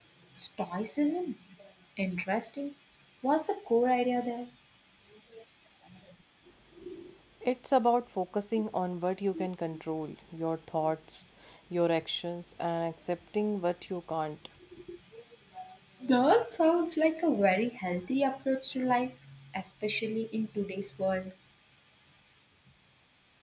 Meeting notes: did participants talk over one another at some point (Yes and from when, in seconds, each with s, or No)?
No